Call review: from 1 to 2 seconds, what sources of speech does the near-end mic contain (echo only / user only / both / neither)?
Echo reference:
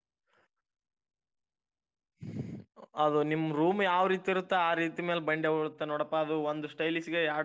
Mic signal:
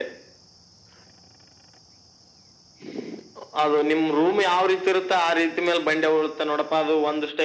neither